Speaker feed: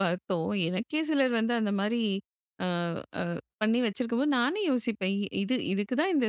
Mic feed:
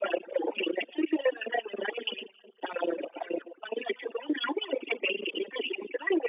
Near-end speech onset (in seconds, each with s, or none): none